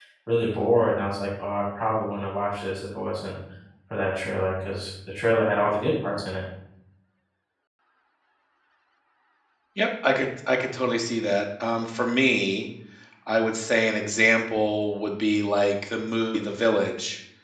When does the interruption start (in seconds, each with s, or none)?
none